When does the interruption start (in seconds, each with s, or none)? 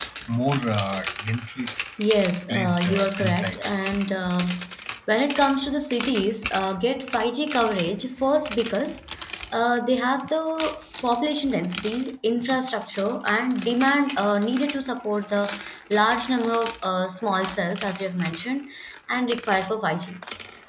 2.5 s